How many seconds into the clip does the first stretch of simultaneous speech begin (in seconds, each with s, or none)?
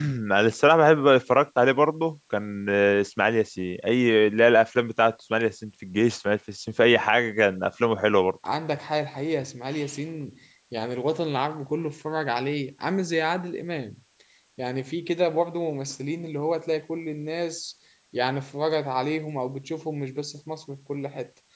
none